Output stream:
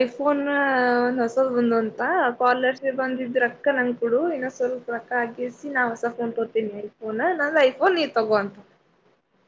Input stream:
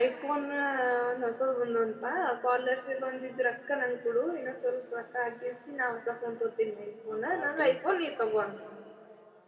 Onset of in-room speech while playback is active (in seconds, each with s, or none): 7.1 s